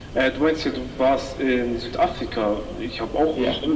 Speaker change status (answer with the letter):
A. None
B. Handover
A